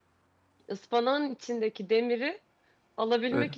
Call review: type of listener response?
listening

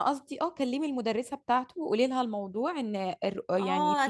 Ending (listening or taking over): taking over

